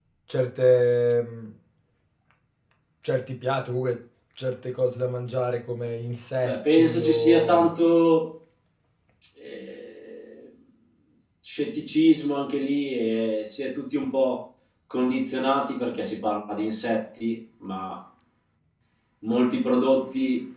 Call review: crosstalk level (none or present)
present